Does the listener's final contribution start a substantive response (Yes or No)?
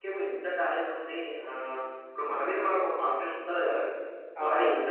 No